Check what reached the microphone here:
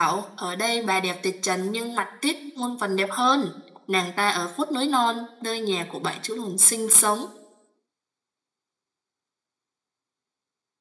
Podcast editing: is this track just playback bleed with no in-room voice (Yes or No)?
Yes